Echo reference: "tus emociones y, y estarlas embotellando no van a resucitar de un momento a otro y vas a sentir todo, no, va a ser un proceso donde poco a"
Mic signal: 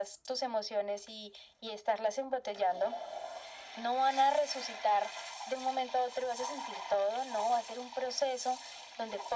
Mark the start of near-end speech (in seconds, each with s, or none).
none